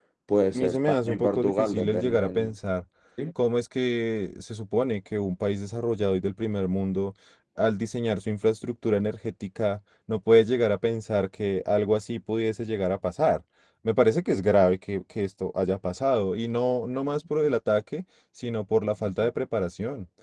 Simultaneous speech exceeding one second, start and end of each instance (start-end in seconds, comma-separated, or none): 0.5-2.5